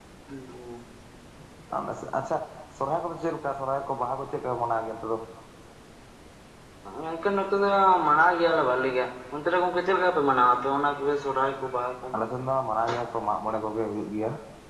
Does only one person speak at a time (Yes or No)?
Yes